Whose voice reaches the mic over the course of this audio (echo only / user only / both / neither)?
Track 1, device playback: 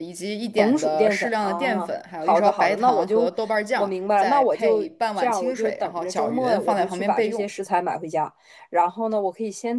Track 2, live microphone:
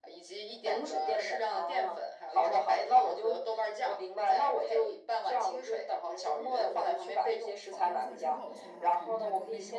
both